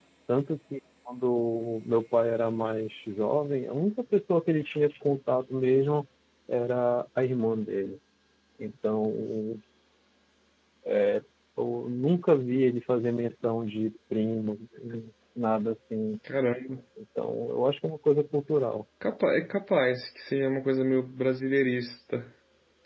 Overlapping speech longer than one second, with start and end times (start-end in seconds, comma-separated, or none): none